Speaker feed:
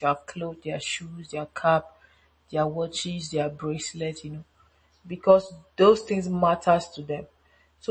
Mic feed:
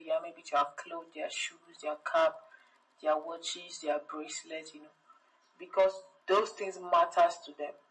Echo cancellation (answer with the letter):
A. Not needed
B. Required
B